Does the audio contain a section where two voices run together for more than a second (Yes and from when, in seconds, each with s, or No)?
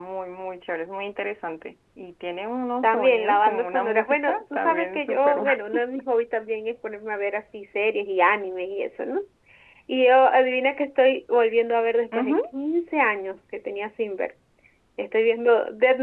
Yes, from 2.8 s